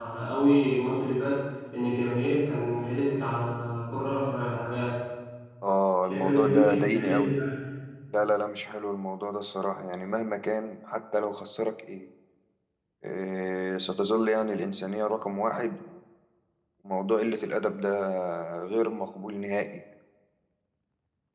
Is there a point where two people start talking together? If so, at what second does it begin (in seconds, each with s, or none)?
6.1 s